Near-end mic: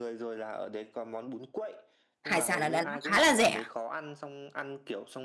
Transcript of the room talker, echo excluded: hải sản ở Đà Nẵng khá là rẻ

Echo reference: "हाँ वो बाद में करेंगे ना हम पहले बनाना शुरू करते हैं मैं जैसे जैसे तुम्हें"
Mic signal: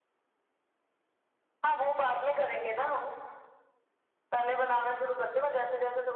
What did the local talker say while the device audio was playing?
none

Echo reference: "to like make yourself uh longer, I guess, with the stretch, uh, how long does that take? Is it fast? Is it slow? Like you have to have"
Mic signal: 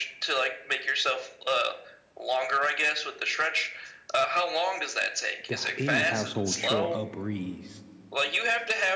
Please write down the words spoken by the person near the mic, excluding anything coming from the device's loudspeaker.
the, any household chore a breeze

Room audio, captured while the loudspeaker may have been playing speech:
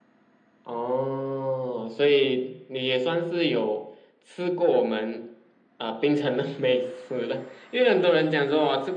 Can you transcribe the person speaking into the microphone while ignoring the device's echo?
none

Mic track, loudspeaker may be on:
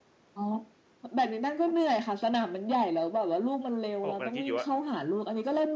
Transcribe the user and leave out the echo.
เพราะผมกำลังคิดอยู่ว่า

